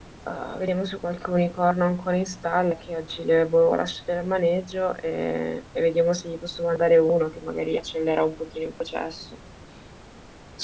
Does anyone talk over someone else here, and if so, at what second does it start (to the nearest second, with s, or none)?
none